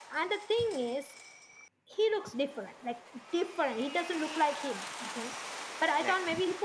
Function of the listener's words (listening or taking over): listening